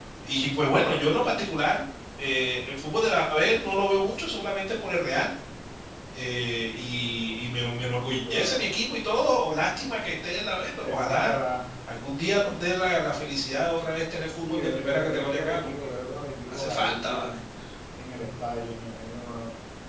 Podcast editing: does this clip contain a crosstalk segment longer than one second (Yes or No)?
Yes